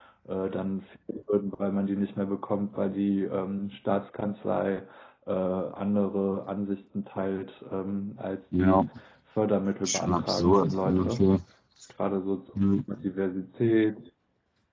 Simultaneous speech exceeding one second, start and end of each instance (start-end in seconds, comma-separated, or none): 9.8-11.2